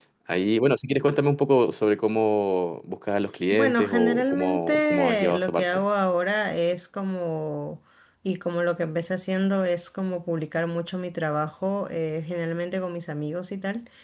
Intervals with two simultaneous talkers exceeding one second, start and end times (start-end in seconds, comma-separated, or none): 3.5-5.8